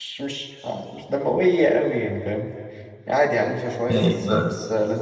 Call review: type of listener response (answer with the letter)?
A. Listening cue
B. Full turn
B